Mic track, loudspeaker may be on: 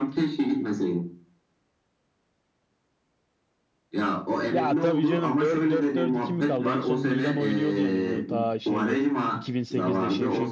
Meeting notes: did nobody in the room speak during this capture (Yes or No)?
No